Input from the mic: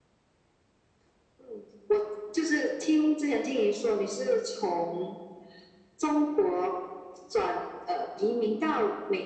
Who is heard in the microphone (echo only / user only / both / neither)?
echo only